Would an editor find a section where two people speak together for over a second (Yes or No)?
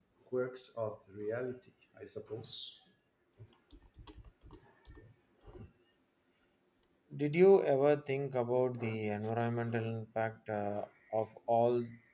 No